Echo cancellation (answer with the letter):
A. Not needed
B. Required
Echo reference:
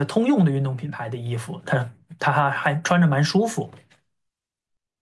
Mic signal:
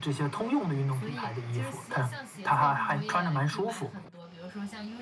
B